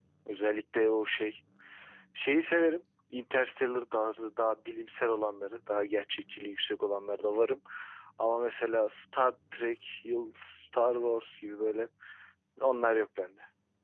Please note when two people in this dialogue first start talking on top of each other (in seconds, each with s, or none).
none